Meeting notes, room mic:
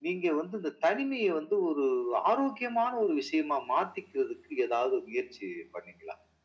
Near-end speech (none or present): none